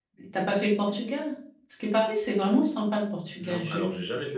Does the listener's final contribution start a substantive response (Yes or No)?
Yes